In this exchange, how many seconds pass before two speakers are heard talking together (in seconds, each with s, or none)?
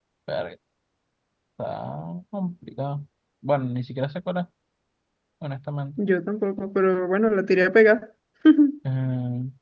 none